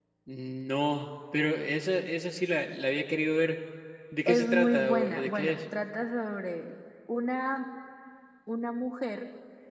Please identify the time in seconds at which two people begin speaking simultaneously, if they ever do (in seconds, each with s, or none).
4.3 s